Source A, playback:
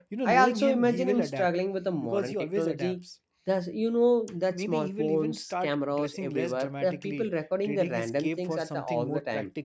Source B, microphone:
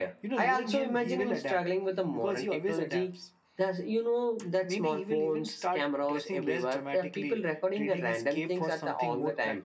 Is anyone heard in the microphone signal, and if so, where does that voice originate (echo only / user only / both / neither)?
echo only